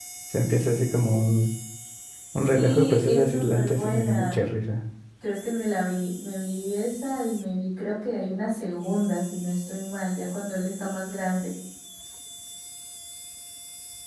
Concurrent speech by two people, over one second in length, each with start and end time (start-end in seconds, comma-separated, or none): 2.4-4.4